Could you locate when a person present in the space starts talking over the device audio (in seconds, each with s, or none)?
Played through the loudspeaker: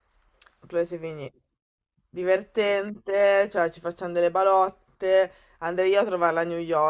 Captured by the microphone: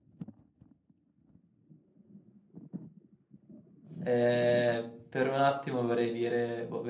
4.0 s